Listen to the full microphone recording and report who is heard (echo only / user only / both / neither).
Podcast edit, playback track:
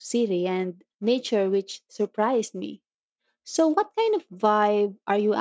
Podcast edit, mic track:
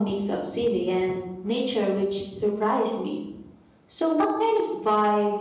echo only